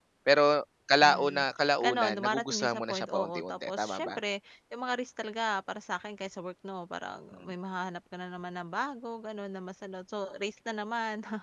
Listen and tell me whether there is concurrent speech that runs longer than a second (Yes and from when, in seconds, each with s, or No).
Yes, from 1.0 s